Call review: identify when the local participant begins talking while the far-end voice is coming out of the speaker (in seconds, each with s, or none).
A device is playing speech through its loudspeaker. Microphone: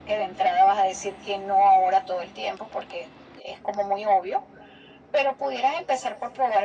none